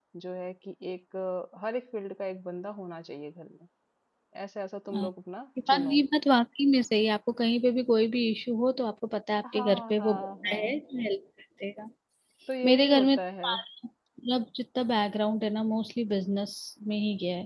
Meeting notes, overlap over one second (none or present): present